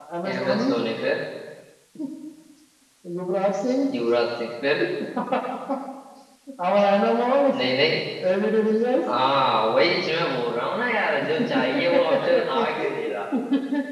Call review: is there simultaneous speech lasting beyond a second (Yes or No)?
Yes